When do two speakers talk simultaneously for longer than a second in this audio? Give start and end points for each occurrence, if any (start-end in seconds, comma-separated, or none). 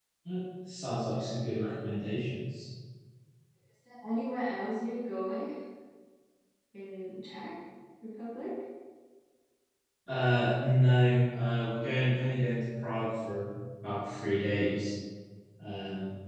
none